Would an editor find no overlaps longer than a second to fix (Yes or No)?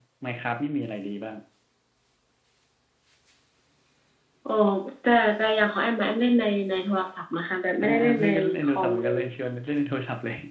No